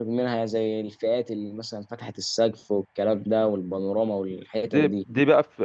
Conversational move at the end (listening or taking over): taking over